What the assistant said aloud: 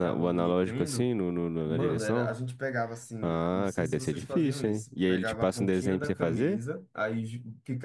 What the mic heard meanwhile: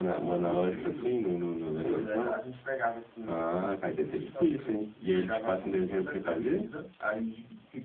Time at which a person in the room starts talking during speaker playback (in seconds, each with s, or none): 0.3 s